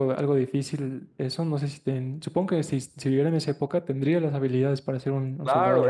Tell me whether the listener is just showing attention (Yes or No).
No